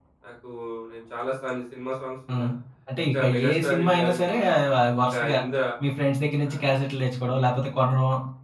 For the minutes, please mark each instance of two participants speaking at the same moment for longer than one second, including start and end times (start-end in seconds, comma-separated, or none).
3.1-4.4